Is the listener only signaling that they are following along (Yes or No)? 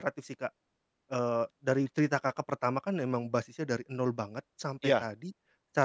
Yes